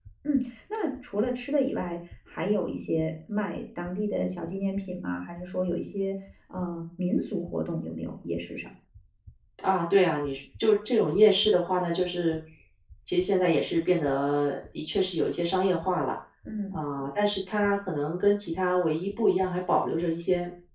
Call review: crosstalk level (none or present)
none